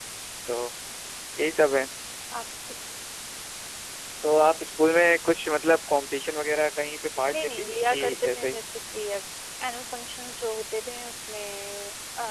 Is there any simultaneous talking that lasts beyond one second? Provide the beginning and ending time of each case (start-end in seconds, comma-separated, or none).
7.3-8.6